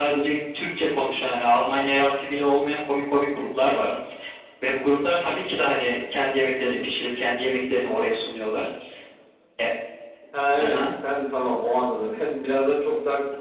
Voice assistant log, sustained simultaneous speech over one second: none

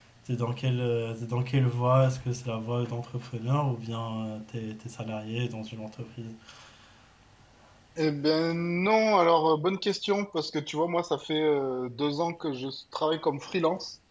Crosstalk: none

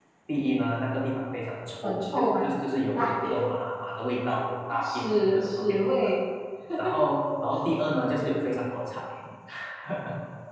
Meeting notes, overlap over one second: present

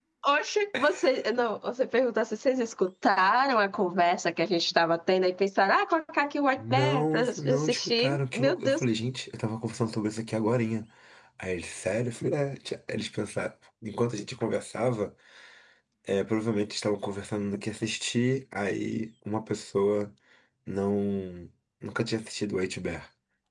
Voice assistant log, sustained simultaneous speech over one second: present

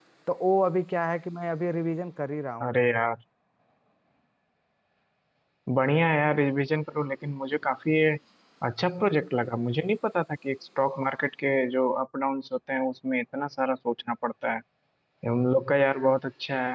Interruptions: none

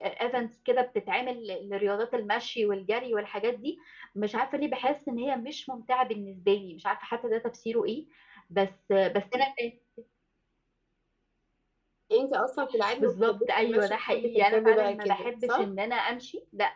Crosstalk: present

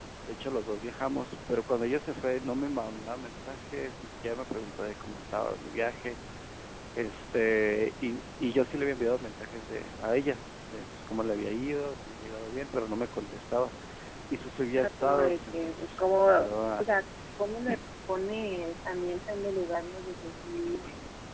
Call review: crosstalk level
present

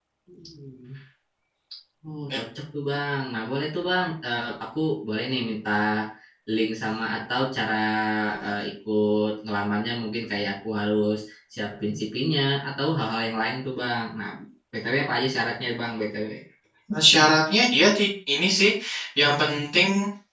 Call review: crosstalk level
none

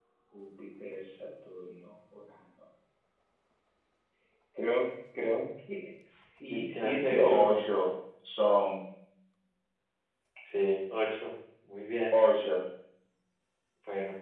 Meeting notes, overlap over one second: present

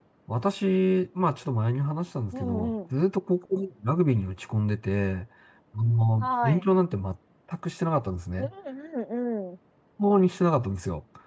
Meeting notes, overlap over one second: none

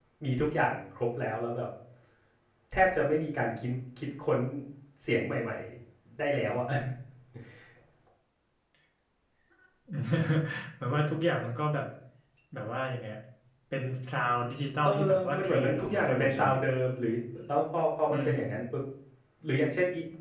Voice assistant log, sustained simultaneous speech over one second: present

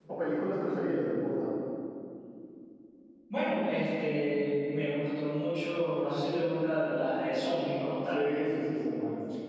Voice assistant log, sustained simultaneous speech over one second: none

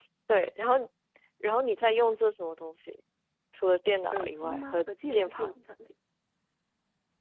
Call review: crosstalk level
present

